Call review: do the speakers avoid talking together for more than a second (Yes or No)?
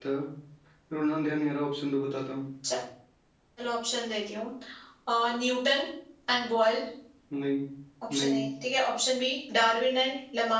Yes